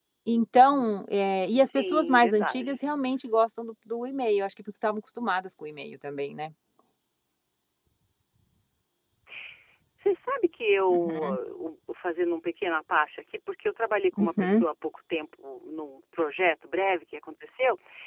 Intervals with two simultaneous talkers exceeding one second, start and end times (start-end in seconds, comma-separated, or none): 1.5-2.8